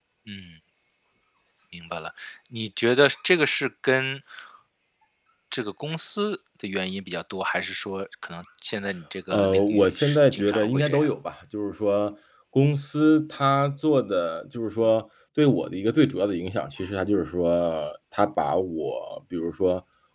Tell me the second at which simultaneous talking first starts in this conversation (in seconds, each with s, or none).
9.3 s